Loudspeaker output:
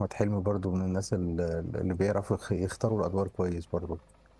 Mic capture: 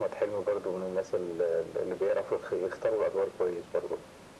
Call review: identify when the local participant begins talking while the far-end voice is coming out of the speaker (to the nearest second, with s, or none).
none